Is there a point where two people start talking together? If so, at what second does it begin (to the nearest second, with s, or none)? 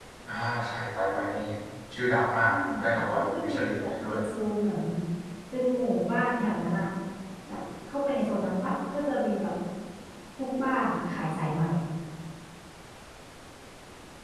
2 s